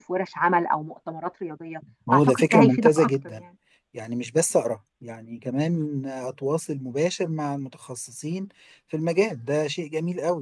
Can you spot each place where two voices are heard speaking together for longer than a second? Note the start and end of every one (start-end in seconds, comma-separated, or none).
2.1-3.3